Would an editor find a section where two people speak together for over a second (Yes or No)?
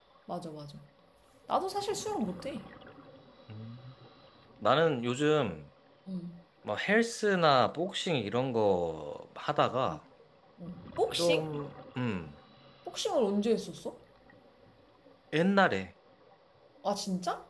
No